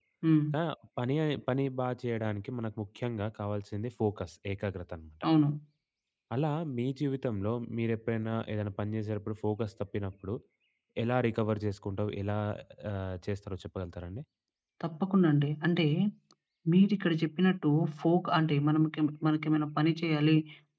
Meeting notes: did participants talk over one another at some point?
No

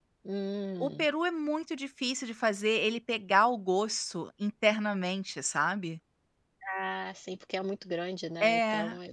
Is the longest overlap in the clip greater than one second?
No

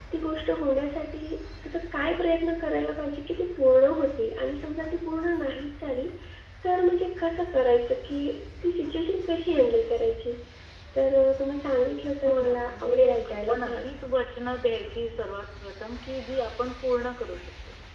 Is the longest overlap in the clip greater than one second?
Yes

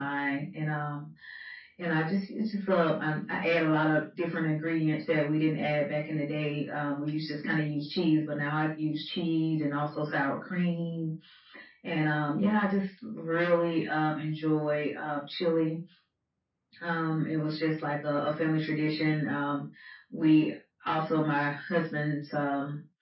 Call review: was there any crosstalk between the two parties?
No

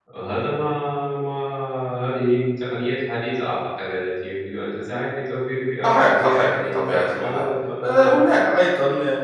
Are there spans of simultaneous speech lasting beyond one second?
Yes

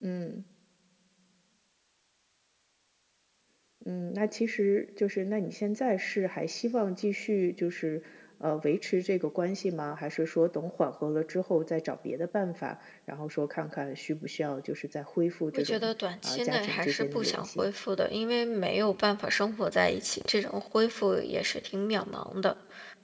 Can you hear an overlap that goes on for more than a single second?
Yes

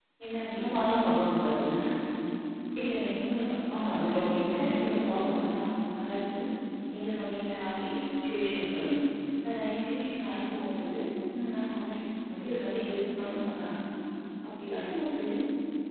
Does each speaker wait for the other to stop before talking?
No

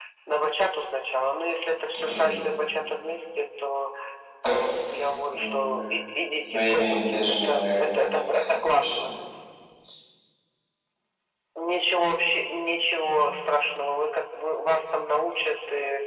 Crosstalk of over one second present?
Yes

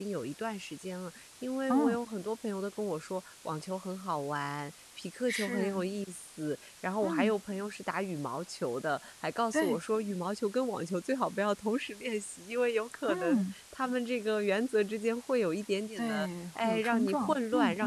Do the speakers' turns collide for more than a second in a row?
Yes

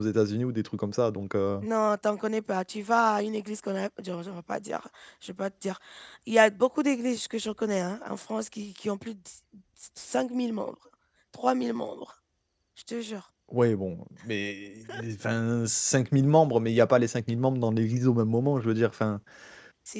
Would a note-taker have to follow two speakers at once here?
No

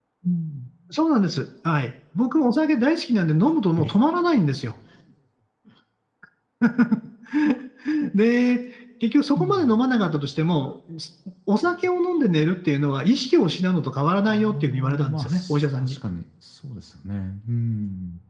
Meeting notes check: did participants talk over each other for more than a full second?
Yes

